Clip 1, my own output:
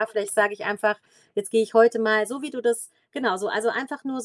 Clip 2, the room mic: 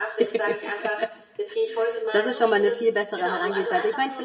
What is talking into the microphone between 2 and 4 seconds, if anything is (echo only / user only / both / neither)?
both